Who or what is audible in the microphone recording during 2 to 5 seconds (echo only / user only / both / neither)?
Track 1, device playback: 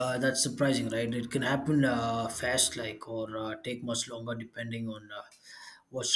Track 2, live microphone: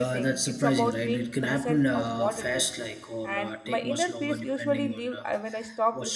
both